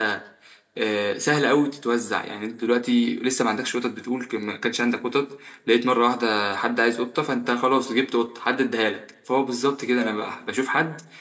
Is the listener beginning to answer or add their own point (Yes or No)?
No